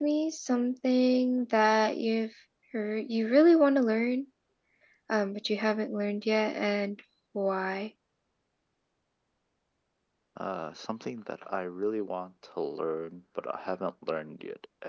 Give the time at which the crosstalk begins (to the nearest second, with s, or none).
none